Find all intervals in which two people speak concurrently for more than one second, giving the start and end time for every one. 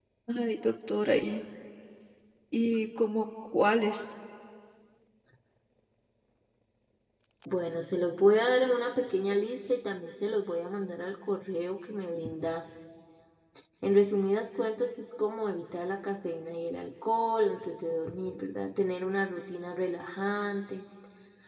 none

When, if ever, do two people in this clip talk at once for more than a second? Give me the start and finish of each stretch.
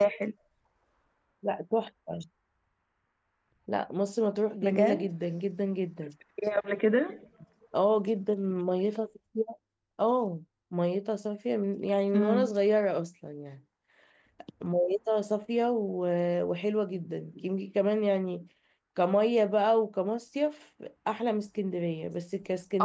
none

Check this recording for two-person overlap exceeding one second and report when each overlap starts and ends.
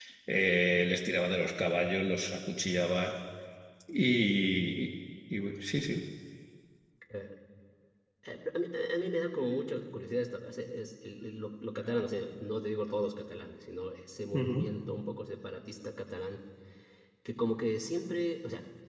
none

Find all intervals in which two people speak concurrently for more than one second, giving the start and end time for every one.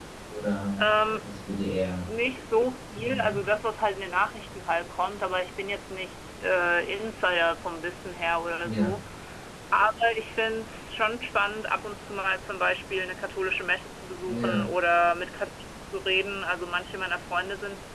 none

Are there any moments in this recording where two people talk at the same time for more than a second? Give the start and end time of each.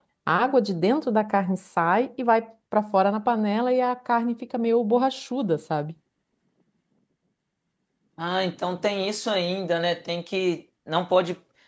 none

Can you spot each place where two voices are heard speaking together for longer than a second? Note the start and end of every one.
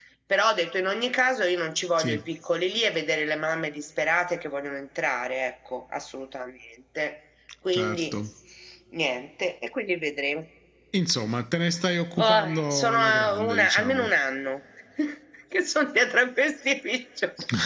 12.2-14.1

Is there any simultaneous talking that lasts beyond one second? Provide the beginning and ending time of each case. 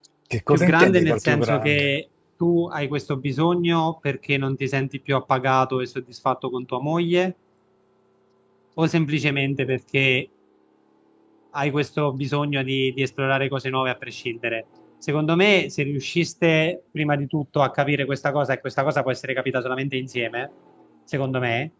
0.5-1.9

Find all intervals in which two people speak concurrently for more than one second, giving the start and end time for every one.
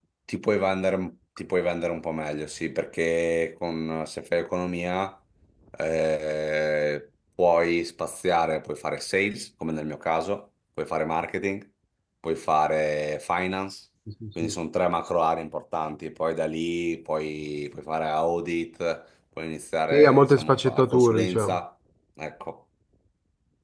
19.9-21.6

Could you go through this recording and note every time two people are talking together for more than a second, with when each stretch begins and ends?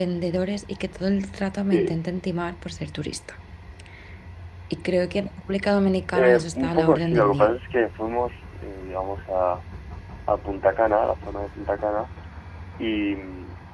6.2-7.5

